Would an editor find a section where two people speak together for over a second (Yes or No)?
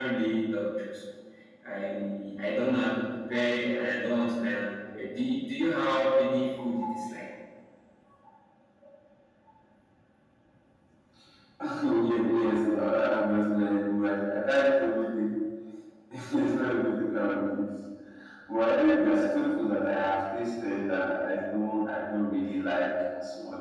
No